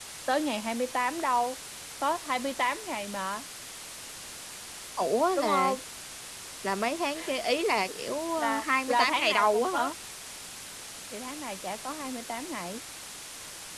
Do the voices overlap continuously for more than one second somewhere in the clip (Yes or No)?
Yes